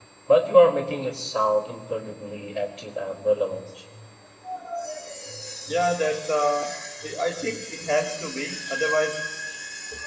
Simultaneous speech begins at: none

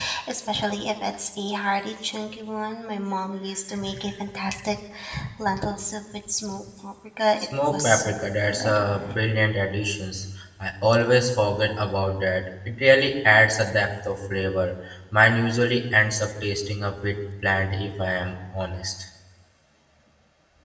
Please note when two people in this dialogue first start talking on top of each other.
7.4 s

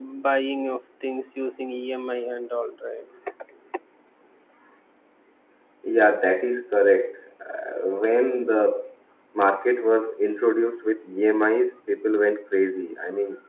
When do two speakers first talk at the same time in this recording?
none

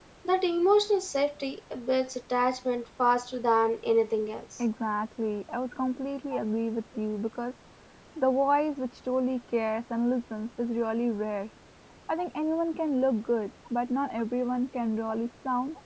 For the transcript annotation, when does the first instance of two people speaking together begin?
none

